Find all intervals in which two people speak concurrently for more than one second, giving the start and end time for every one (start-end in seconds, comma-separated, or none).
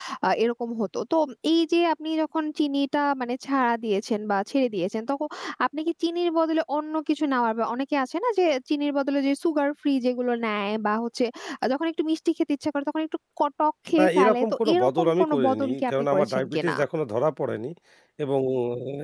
14.0-16.7